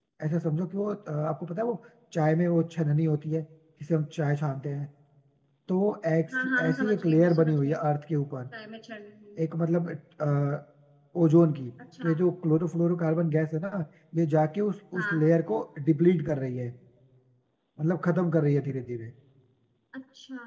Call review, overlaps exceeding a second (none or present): present